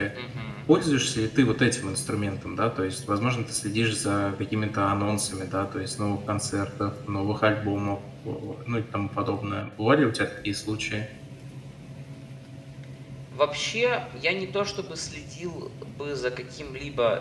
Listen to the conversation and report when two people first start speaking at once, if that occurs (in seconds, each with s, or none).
none